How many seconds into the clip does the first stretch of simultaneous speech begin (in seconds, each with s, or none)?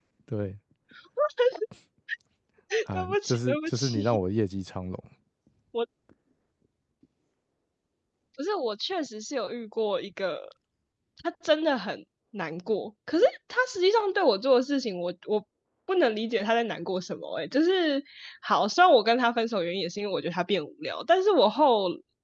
2.9 s